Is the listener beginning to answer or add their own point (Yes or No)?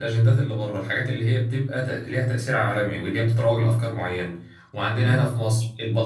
No